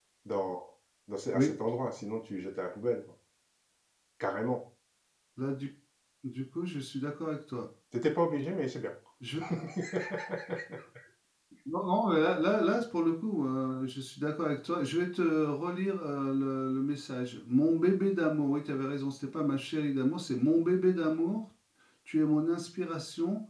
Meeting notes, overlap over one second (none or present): none